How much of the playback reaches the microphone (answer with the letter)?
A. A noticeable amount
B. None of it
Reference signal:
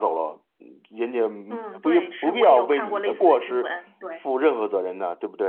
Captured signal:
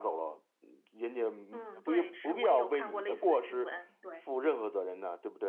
A